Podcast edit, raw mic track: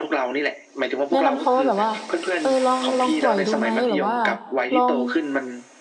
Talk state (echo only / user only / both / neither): both